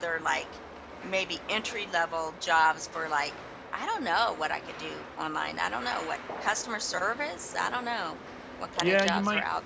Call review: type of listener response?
taking over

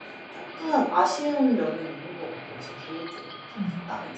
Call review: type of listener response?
taking over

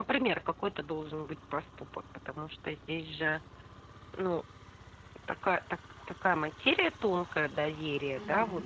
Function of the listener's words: listening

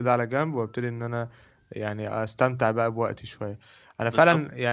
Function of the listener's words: listening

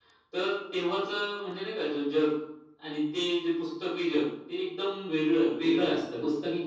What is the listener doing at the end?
taking over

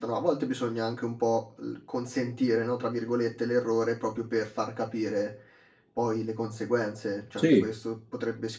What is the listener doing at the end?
listening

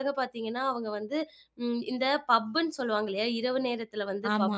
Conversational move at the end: listening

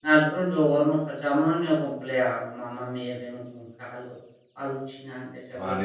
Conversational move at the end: taking over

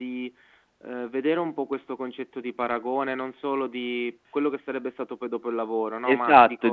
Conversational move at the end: taking over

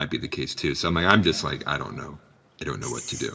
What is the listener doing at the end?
taking over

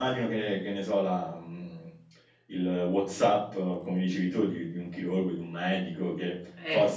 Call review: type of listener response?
listening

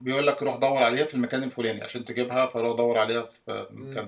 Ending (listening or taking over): taking over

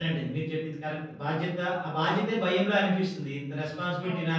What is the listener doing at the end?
listening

